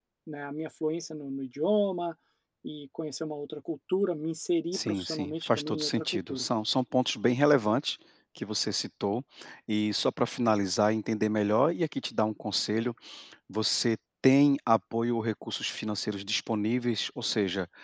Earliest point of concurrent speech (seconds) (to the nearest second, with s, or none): 5 s